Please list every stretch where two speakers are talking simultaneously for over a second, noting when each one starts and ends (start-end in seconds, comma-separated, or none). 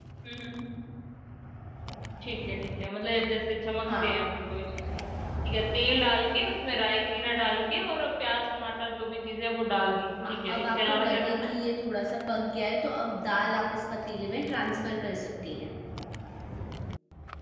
10.2-11.5